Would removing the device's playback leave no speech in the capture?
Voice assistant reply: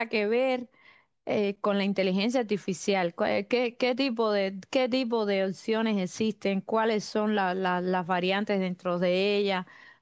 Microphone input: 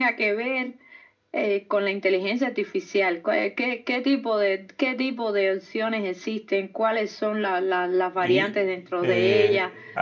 No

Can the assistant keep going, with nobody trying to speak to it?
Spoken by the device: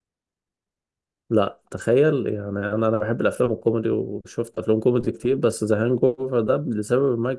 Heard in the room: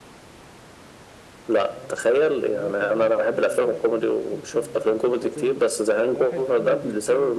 No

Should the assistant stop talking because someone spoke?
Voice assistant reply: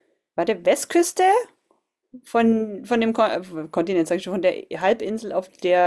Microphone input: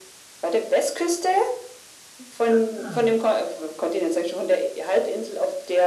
Yes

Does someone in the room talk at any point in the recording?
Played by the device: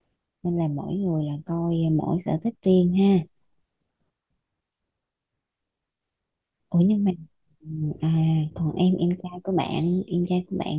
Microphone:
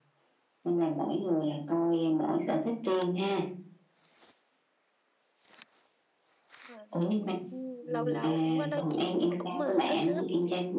Yes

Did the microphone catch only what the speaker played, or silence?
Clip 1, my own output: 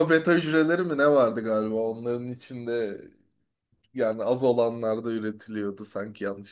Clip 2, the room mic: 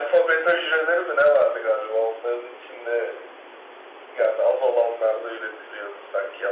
Yes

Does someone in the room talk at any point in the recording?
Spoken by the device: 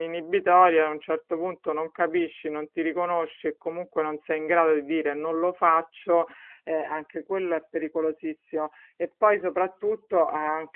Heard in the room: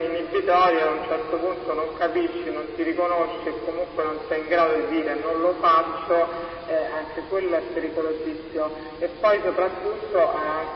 No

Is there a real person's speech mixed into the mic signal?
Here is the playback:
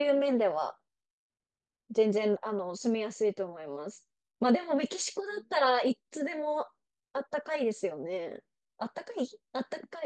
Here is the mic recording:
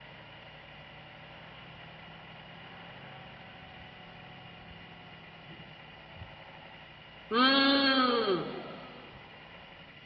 Yes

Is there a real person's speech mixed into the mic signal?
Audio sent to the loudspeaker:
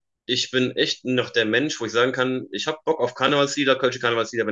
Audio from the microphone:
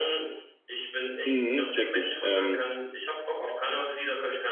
Yes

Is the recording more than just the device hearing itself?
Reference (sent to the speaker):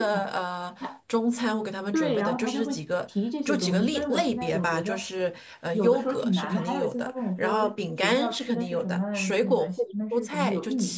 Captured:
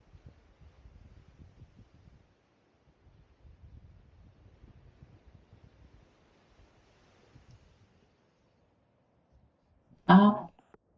Yes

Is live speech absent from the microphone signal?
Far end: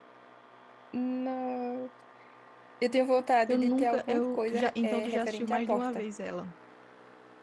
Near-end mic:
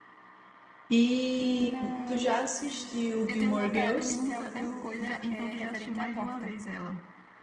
No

